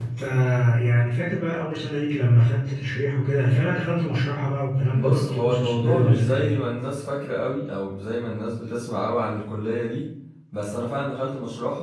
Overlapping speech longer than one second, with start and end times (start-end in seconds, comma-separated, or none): 4.9-6.6